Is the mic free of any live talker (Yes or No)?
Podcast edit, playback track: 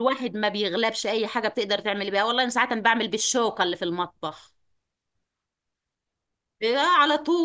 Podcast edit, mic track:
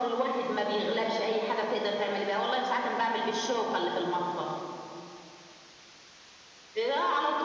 Yes